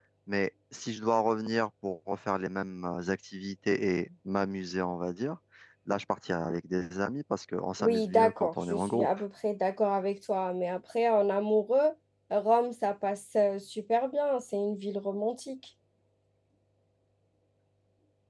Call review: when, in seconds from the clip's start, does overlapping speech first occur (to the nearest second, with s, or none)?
8 s